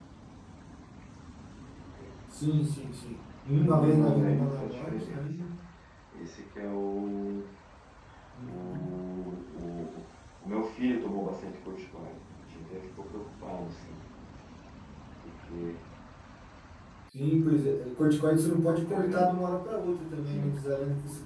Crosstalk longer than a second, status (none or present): present